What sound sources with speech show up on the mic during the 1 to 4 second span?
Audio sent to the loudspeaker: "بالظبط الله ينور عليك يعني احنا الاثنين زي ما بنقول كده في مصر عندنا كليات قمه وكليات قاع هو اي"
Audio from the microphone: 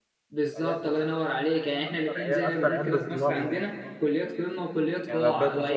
both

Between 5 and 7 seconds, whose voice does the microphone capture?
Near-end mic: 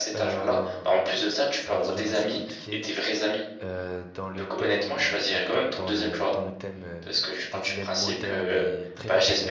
both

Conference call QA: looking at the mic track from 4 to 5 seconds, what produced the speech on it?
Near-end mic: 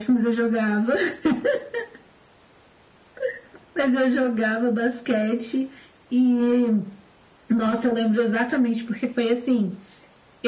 echo only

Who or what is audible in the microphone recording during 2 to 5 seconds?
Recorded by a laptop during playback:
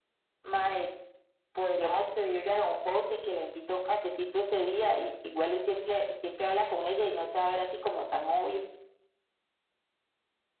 echo only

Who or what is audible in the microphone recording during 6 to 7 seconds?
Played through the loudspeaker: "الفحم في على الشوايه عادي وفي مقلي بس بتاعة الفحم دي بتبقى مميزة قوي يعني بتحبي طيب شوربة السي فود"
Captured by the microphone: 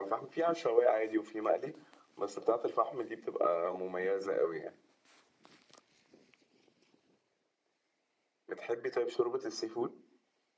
neither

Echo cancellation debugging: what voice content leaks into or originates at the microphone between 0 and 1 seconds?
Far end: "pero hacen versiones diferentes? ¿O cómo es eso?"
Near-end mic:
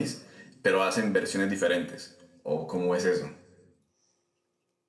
echo only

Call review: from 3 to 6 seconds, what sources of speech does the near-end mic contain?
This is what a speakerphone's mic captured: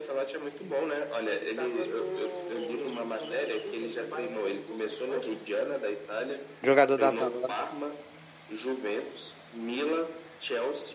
echo only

